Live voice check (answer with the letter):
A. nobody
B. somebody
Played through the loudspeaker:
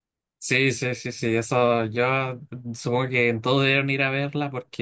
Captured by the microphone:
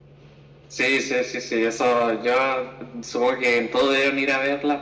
A